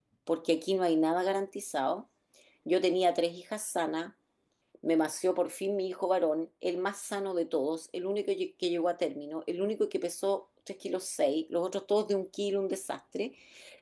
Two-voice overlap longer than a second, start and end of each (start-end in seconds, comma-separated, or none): none